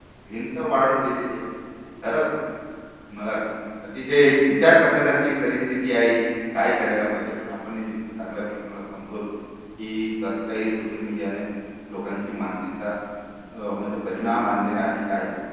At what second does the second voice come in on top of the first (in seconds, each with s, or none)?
none